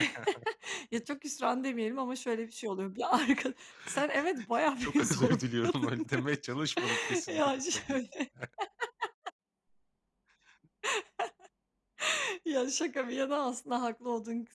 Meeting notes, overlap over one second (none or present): present